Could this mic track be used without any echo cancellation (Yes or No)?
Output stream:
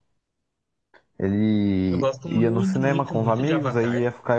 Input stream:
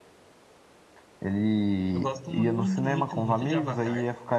No